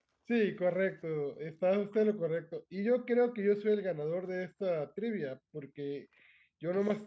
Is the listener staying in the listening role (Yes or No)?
Yes